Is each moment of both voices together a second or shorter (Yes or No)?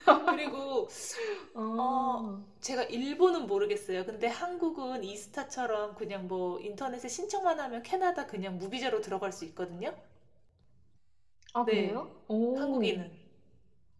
Yes